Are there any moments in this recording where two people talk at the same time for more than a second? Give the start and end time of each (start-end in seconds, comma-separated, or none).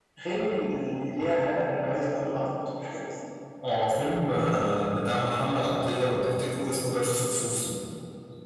none